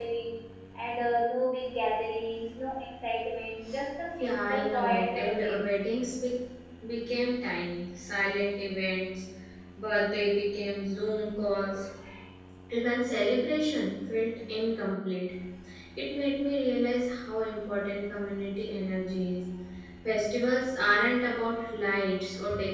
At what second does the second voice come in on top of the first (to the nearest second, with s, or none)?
4 s